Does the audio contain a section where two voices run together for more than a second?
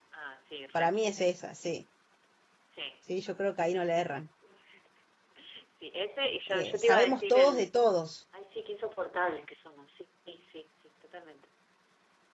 Yes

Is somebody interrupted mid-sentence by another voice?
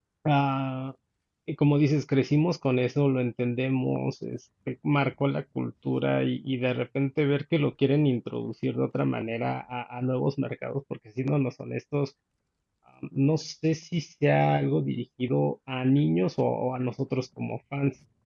No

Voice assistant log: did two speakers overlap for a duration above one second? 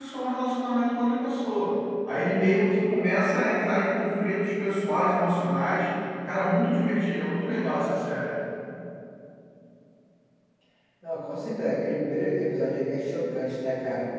No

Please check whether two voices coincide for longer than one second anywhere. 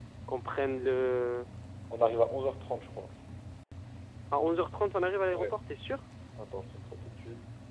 No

